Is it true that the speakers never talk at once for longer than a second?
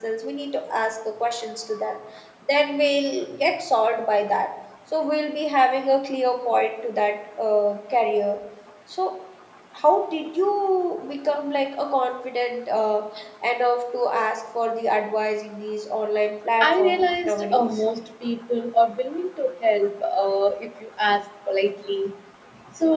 No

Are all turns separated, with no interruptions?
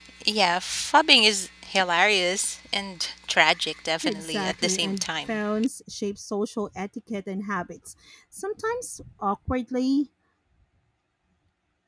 No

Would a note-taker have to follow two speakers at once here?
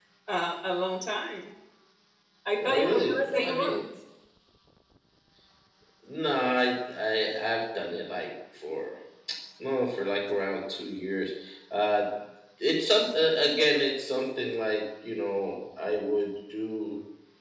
Yes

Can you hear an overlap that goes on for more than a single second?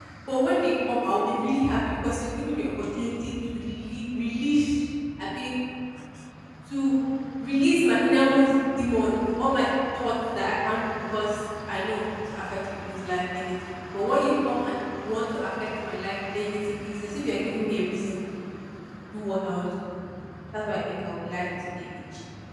No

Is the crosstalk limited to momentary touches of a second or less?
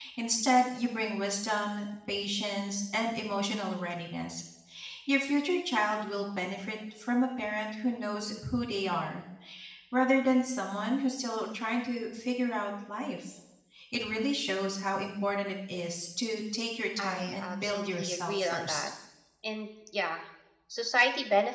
No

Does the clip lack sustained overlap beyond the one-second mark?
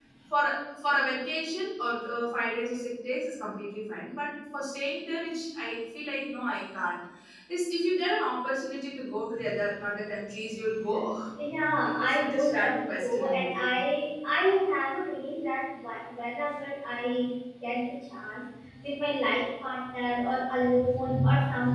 No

